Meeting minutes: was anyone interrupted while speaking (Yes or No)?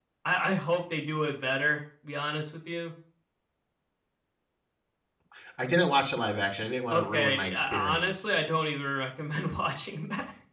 Yes